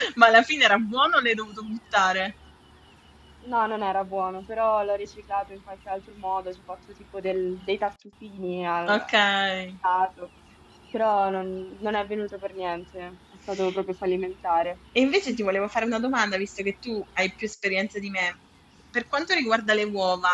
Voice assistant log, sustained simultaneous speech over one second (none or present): none